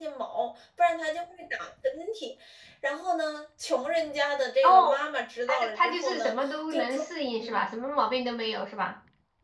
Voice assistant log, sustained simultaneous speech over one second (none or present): present